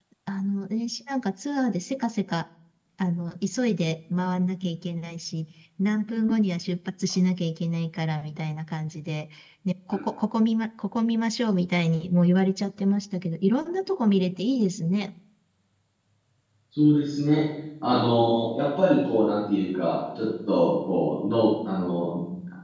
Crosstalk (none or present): none